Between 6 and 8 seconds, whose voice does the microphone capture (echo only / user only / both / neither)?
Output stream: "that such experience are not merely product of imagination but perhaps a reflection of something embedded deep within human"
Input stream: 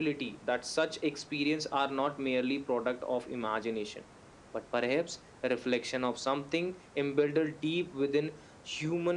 echo only